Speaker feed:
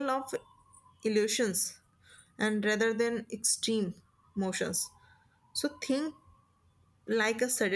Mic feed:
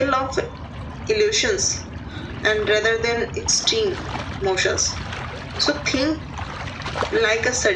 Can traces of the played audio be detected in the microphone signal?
Yes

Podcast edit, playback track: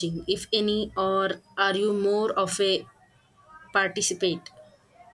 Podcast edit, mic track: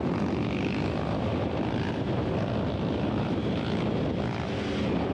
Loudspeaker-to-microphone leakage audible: No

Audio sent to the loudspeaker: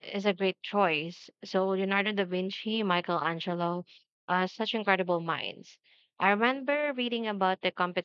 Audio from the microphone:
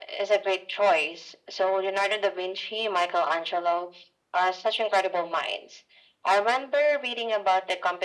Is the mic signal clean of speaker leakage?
No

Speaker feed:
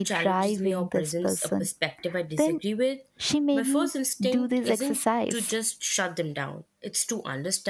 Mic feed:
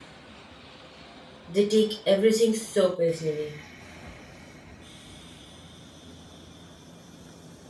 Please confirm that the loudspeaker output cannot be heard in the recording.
Yes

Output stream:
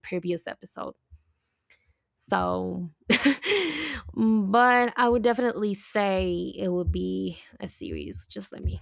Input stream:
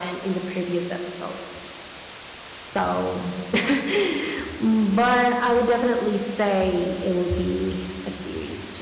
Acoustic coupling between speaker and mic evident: Yes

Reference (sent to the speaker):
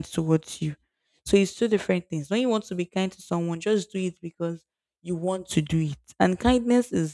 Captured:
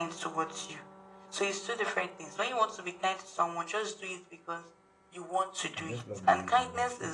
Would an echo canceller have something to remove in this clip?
Yes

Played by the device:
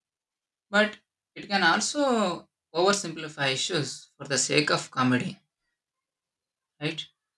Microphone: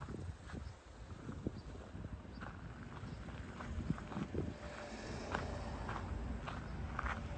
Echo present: No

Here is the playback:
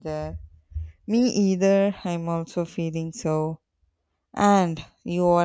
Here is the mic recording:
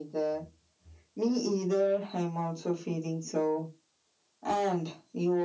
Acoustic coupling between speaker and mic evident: Yes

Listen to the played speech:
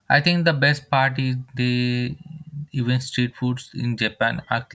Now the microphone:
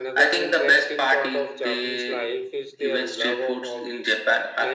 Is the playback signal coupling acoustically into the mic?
Yes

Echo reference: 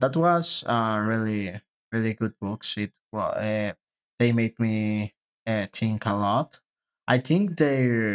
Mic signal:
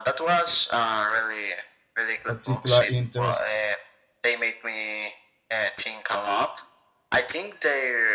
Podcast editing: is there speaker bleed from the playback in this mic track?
Yes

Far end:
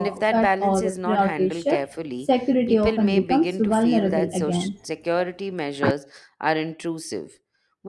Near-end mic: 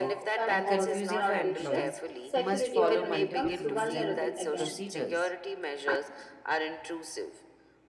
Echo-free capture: No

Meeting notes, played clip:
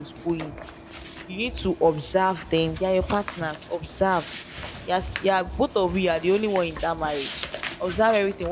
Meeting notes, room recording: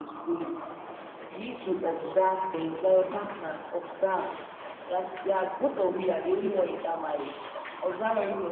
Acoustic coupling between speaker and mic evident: Yes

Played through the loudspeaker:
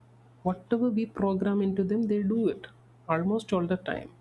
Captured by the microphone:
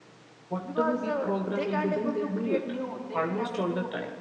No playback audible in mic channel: No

